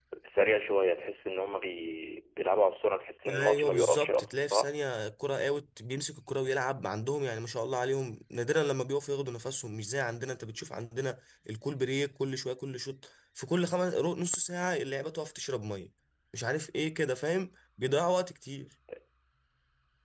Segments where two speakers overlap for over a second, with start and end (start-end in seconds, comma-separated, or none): 3.2-4.7